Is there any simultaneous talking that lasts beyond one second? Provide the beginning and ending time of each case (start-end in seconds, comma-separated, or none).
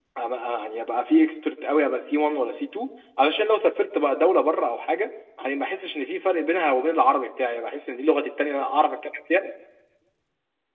none